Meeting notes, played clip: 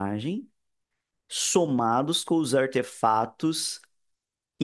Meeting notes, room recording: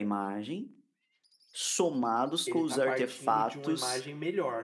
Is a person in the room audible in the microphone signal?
Yes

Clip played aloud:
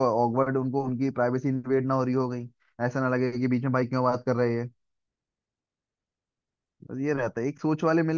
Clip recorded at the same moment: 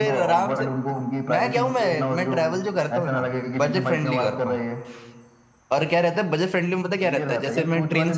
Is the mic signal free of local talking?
No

